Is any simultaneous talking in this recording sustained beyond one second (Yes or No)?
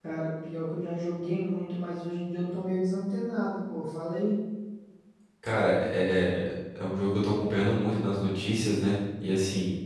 No